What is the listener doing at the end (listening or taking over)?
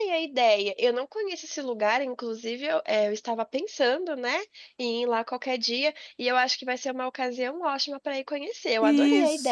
taking over